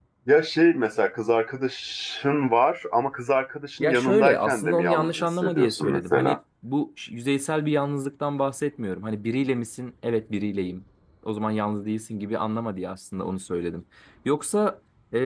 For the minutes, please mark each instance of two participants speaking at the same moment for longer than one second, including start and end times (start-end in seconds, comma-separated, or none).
3.8-6.4